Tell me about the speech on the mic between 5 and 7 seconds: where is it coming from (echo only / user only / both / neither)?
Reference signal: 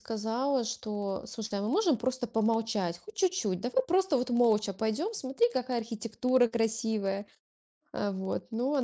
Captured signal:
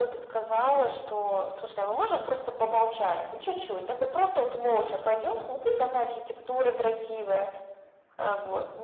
echo only